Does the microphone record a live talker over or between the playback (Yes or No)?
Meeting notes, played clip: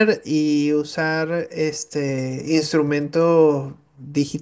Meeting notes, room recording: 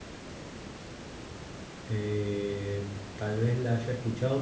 Yes